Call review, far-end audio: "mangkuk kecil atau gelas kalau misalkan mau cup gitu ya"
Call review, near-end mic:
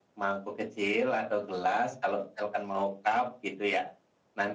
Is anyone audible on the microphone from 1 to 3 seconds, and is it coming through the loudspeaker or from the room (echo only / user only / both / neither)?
echo only